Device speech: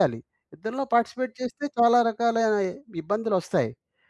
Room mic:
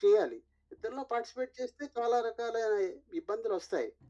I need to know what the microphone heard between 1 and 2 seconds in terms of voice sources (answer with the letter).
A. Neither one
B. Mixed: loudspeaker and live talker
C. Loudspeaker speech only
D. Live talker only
C